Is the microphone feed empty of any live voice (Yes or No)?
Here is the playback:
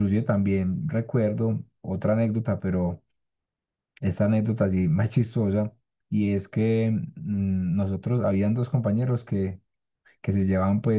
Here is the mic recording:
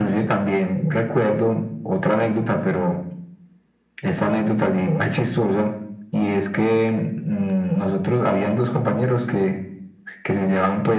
Yes